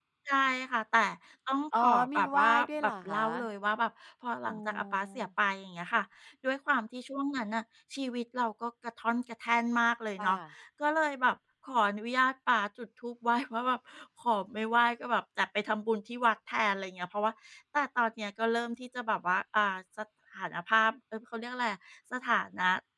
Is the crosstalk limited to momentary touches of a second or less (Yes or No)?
No